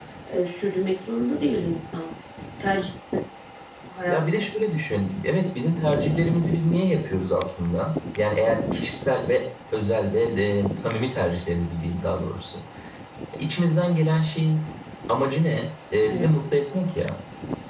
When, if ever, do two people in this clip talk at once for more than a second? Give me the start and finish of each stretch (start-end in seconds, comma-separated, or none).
none